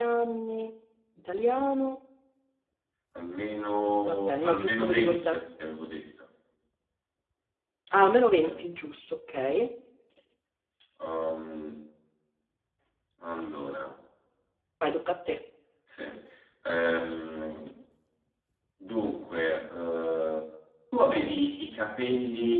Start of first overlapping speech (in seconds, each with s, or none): 4.1 s